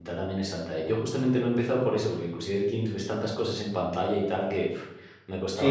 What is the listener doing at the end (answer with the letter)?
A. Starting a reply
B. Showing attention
A